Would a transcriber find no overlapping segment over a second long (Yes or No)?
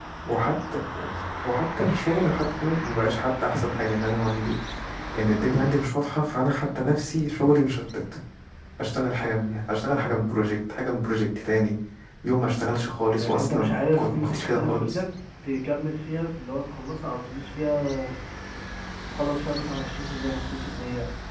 No